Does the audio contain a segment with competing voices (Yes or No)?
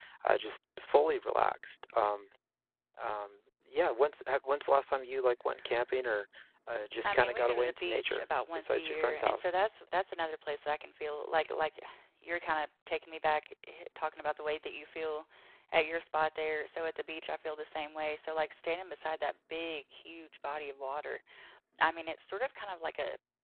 Yes